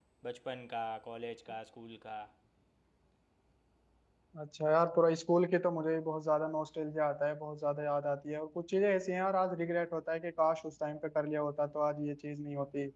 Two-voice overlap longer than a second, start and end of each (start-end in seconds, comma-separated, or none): none